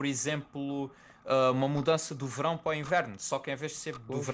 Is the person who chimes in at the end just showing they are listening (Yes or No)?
Yes